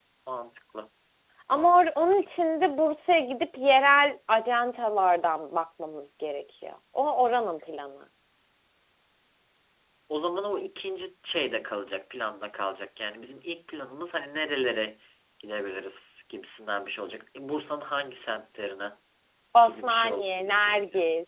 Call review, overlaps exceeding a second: present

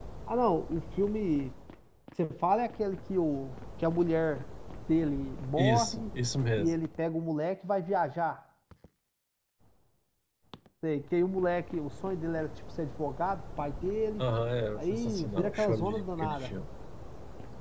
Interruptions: present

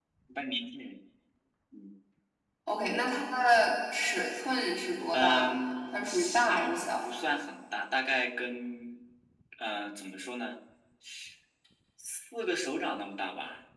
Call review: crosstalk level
present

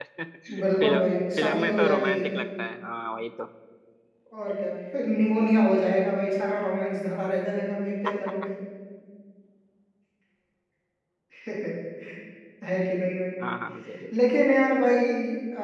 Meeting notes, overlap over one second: present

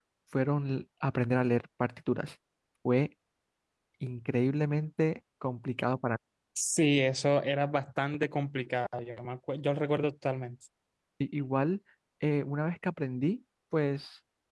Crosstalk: none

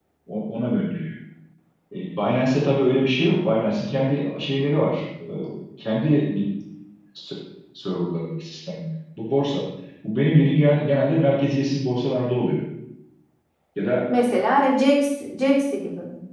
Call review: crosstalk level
none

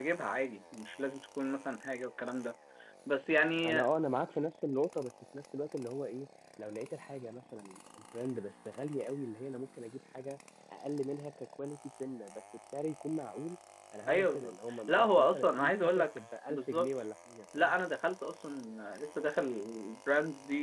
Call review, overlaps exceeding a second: present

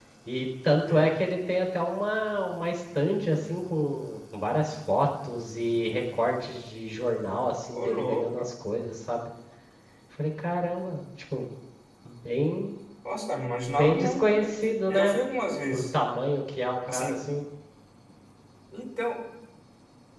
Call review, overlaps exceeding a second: present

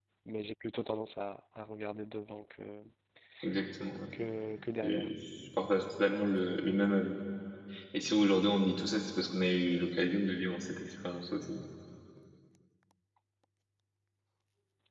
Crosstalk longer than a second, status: none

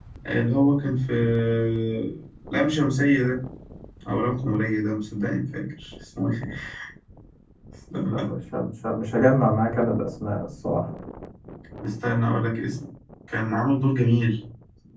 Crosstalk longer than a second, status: none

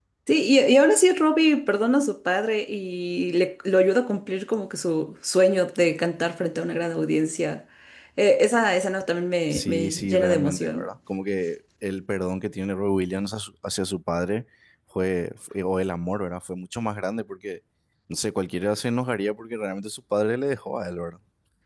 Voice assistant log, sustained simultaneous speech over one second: present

